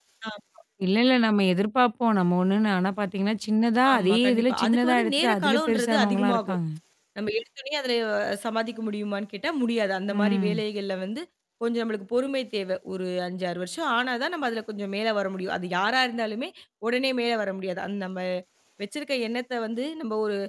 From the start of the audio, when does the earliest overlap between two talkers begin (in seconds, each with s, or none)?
3.9 s